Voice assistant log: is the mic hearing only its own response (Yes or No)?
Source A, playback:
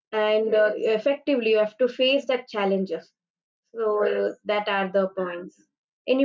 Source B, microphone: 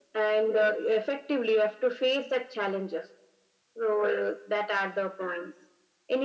Yes